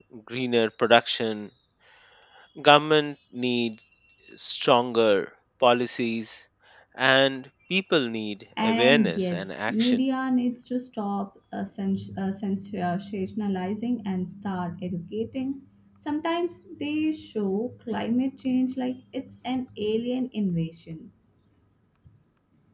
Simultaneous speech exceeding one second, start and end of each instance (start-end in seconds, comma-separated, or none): 8.6-10.0